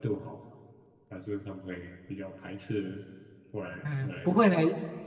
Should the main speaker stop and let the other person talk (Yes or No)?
Yes